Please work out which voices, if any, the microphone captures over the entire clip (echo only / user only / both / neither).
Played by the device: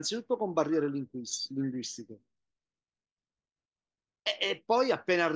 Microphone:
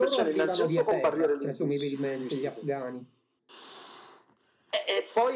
both